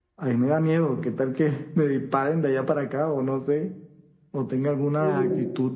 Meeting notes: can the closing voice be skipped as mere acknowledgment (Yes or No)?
Yes